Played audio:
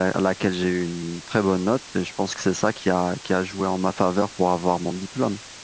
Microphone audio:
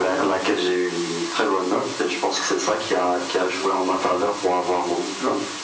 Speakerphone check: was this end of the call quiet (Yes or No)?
Yes